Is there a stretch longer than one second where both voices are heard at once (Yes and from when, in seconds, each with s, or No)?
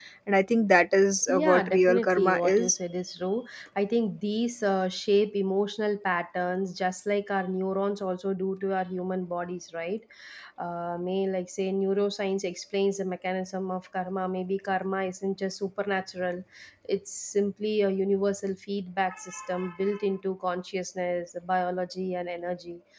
Yes, from 1.3 s